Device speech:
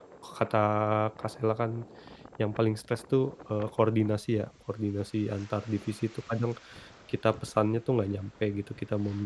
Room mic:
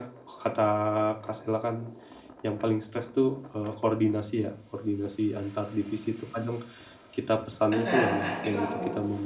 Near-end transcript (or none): Enggak enggak. Itu aku.